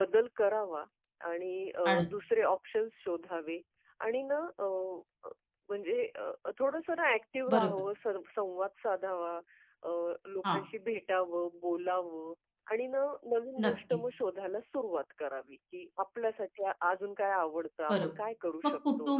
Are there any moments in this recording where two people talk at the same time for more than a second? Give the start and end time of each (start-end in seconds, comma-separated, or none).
none